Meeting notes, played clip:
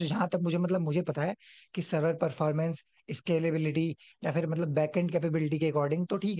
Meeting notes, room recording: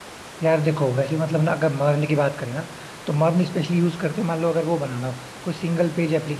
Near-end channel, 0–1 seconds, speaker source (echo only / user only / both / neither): user only